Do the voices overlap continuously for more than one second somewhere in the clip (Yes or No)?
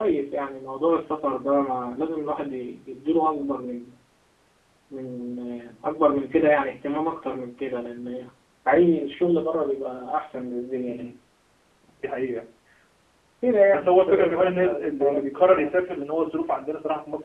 Yes